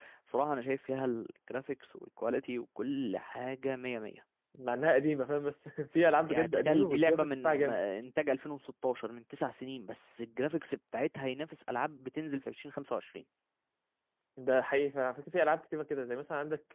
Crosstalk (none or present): present